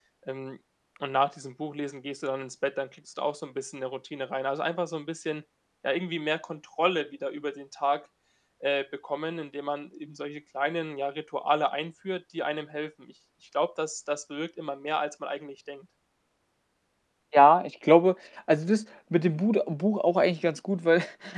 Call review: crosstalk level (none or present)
none